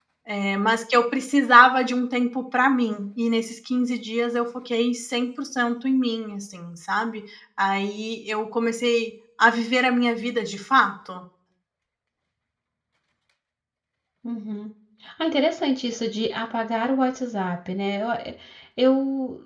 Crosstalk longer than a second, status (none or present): none